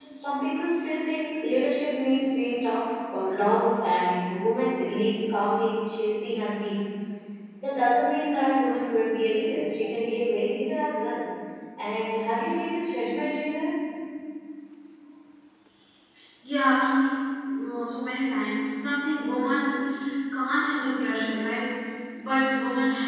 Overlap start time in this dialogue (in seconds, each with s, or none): none